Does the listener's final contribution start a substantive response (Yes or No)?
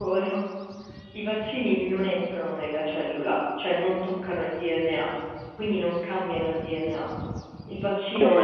Yes